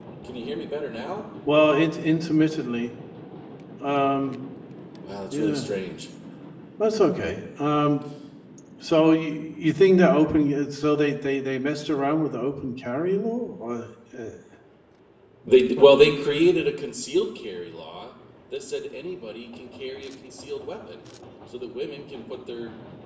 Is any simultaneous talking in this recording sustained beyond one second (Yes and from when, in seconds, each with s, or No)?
No